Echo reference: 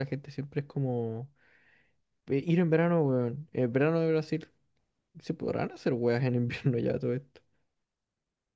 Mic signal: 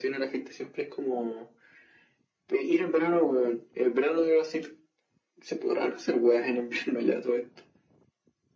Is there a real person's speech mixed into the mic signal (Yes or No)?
No